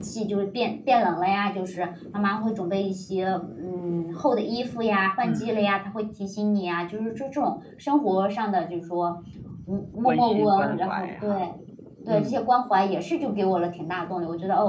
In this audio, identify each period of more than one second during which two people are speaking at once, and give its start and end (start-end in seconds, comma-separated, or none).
10.1-11.4